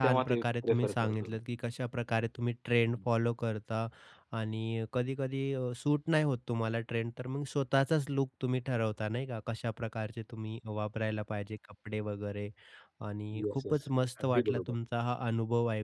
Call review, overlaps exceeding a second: present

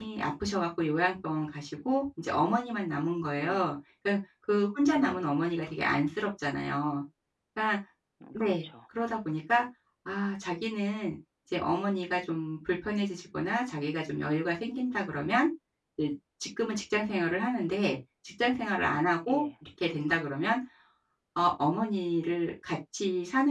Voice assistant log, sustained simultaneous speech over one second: none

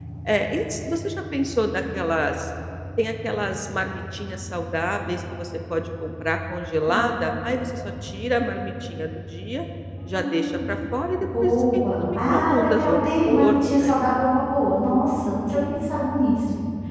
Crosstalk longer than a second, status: present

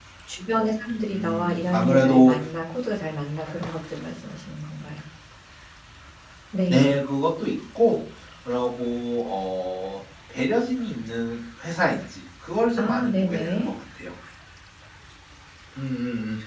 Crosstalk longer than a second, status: present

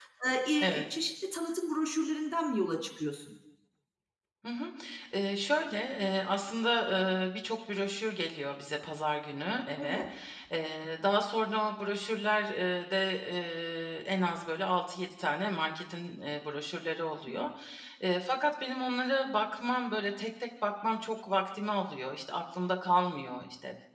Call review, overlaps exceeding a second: none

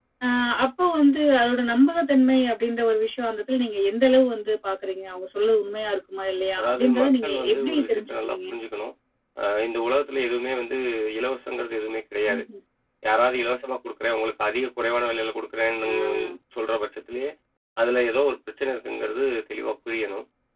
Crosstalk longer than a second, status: present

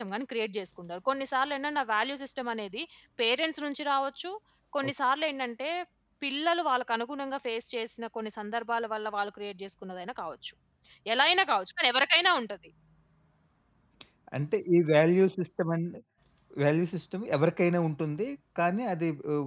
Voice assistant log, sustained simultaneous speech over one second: none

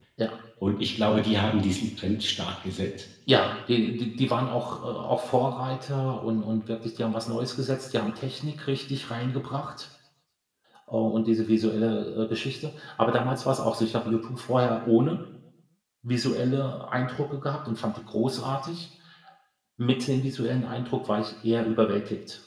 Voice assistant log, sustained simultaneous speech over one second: none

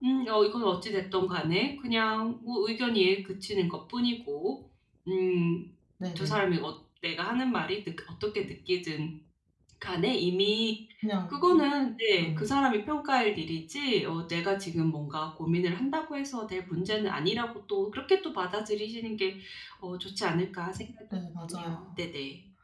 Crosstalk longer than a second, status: none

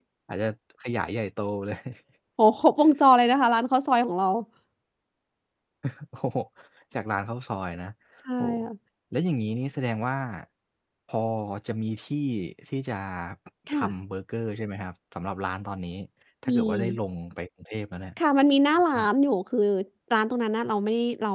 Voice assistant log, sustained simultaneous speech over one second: none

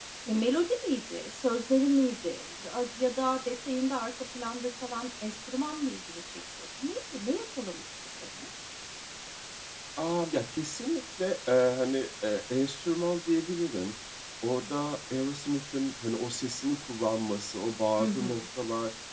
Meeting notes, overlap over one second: none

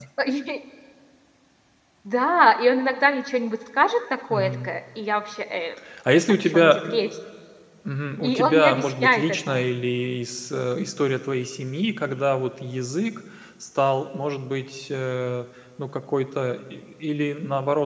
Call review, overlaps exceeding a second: present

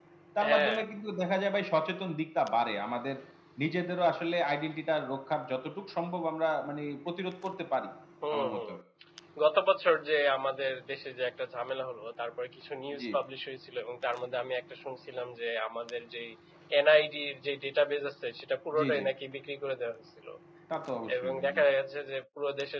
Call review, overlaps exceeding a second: none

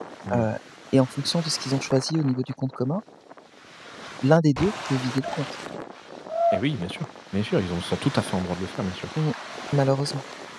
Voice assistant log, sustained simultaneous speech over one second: none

